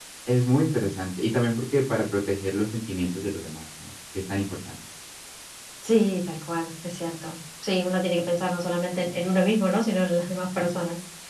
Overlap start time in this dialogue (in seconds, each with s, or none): none